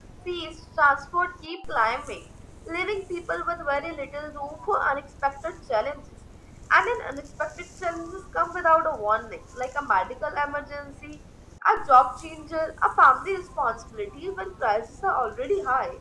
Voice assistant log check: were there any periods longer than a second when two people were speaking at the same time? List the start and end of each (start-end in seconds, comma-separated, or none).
none